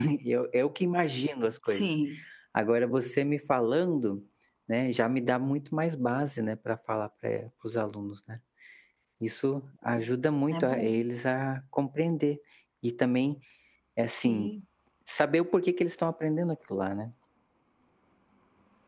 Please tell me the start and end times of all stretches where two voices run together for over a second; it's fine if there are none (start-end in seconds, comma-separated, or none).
none